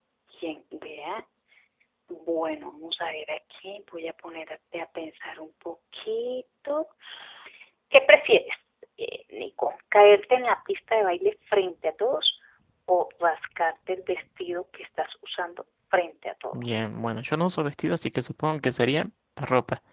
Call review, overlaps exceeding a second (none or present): none